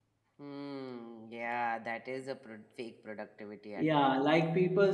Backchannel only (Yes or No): No